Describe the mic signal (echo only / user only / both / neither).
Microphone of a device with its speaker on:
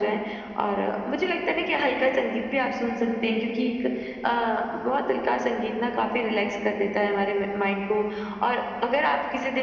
echo only